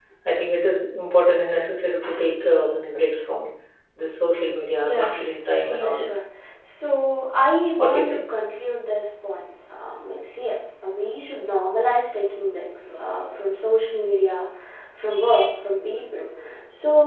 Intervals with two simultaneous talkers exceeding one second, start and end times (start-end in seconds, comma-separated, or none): 4.8-6.0